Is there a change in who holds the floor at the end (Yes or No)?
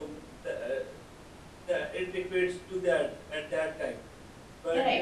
Yes